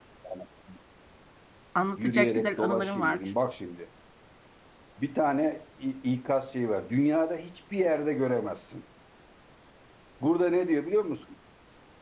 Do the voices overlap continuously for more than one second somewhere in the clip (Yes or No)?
Yes